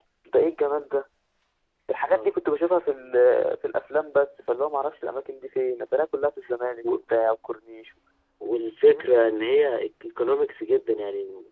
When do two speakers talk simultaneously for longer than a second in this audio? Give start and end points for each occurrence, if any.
none

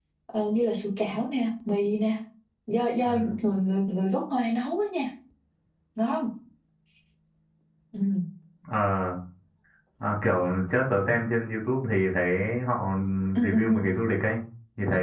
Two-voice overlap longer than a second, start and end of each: none

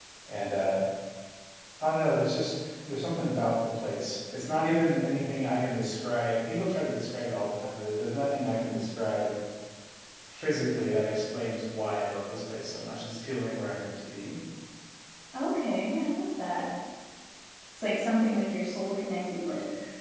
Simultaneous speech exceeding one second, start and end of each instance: none

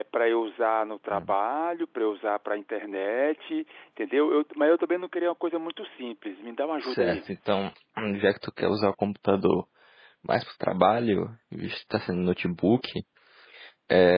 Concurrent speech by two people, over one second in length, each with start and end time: none

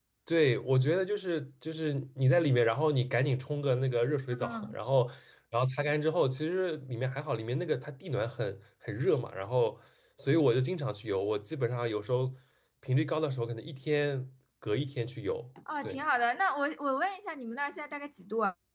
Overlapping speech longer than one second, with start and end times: none

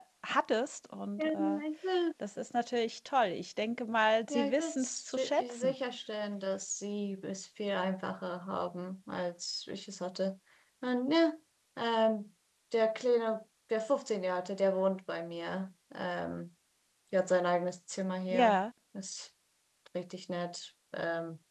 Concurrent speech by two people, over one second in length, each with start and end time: 4.3-5.7

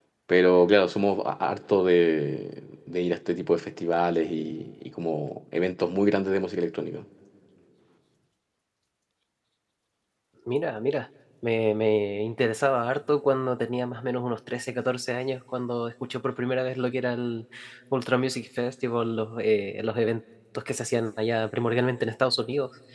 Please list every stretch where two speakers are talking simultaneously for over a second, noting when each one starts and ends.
none

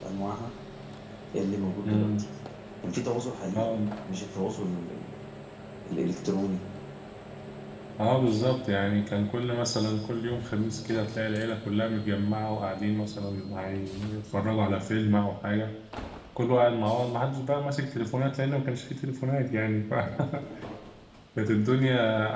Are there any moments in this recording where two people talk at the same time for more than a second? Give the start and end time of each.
none

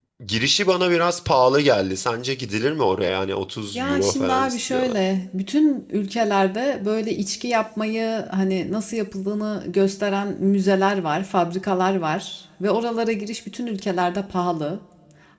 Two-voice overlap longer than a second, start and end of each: 3.7-5.0

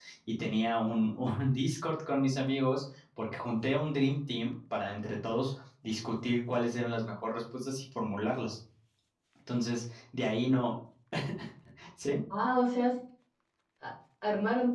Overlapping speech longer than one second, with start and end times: none

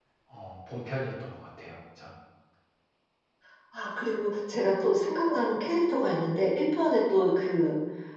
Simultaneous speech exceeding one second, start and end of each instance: none

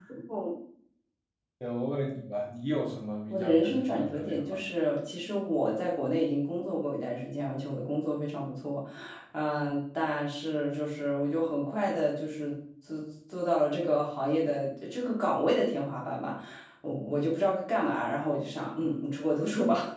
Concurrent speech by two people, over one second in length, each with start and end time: 3.3-4.6

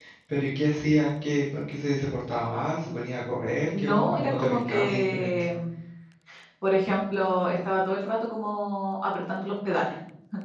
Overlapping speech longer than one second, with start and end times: 3.8-5.3

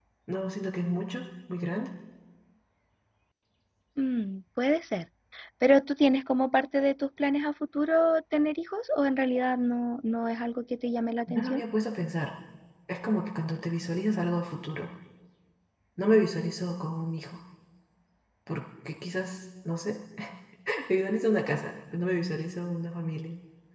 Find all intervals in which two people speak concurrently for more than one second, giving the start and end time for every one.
none

